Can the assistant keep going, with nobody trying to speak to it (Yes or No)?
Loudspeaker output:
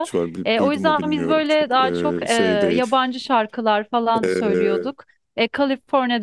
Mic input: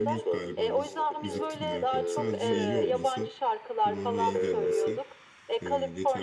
No